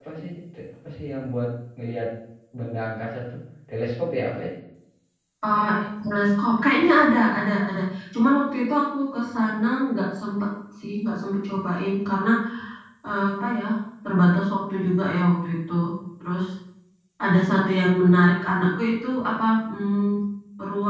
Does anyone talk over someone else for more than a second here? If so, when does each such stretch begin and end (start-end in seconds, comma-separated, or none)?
none